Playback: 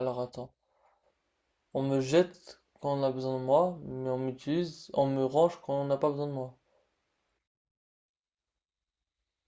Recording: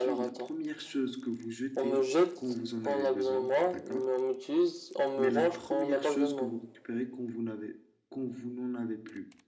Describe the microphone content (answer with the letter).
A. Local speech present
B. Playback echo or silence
A